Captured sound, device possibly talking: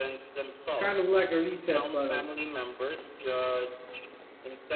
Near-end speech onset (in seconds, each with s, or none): 0.8 s